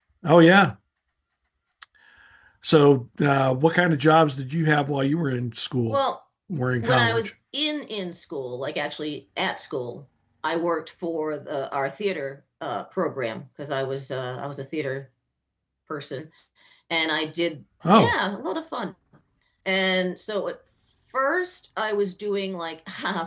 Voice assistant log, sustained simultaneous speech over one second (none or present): none